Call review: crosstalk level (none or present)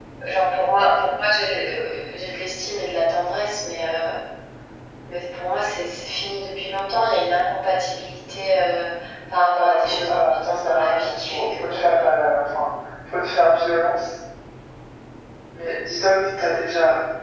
present